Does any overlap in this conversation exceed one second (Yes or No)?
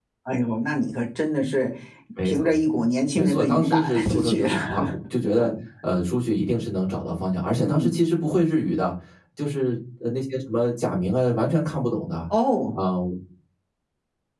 Yes